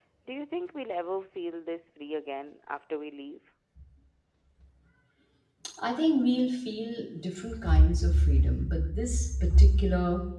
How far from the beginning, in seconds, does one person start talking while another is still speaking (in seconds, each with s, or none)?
none